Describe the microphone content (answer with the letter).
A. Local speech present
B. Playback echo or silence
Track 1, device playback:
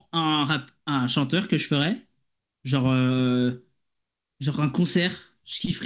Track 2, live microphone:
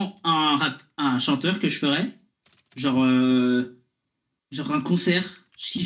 B